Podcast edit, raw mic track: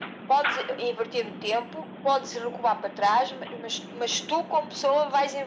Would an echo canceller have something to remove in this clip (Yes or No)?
Yes